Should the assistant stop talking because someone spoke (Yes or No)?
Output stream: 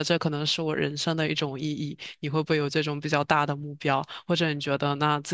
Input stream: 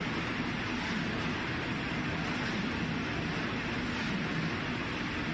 No